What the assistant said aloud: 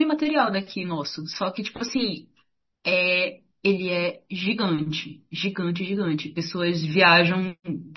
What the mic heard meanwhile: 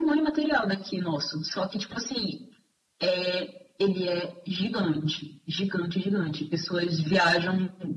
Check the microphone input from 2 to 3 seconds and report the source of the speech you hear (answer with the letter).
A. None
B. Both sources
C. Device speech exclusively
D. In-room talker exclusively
C